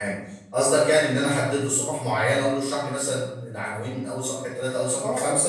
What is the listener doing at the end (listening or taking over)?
taking over